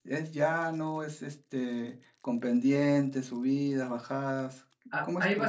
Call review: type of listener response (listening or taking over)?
taking over